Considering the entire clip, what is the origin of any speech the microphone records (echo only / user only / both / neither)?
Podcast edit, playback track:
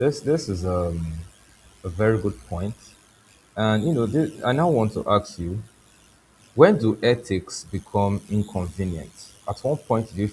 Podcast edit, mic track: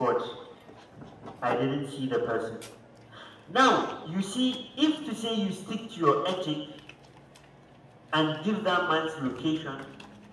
user only